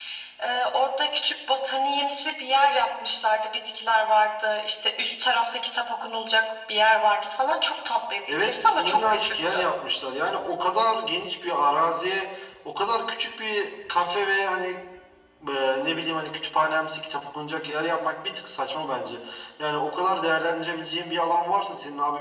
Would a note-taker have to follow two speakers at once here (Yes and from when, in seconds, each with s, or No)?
Yes, from 8.3 s